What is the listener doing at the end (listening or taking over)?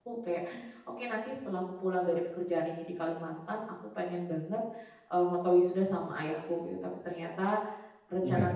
listening